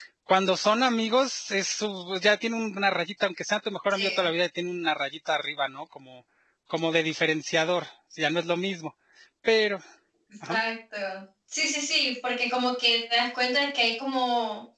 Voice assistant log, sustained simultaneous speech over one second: none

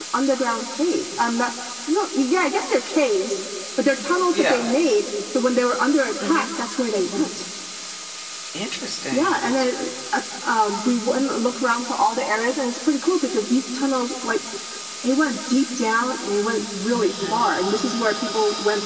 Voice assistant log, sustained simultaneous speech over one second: none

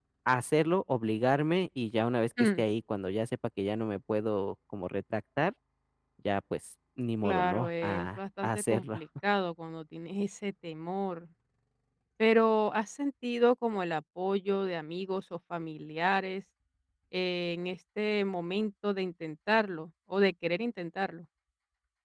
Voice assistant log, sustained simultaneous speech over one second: present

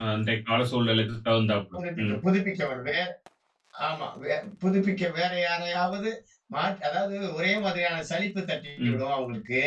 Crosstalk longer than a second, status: none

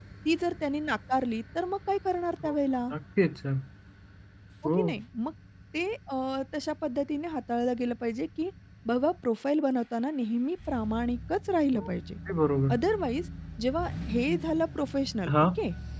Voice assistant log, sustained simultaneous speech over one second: none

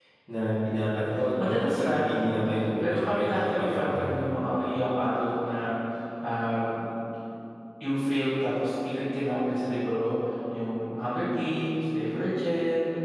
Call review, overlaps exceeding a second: present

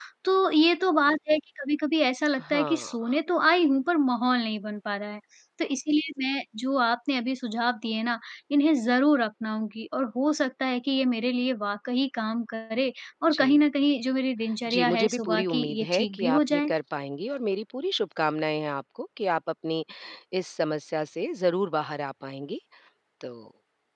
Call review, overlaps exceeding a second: present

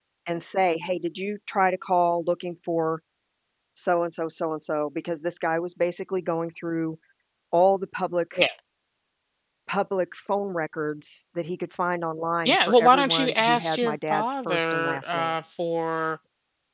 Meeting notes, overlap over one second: present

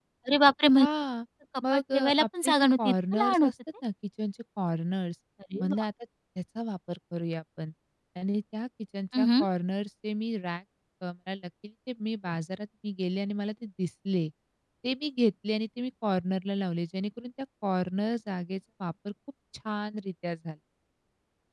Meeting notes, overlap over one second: present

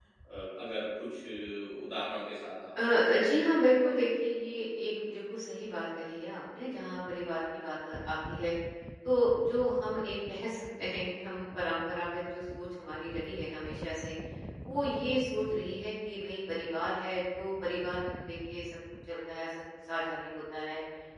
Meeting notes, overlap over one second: none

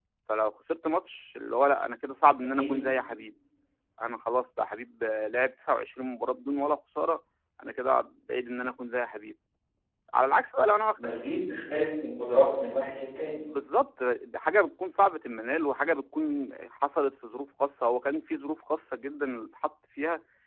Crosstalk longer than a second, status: none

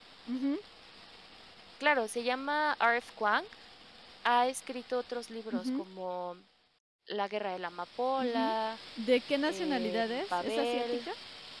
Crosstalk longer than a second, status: present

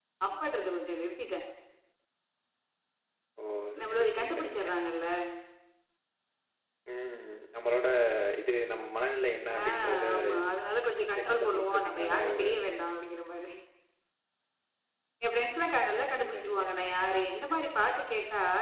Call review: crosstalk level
present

